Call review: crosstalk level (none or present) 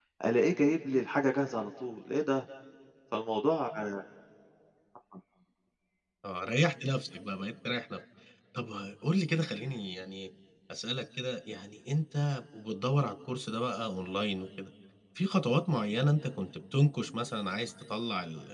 none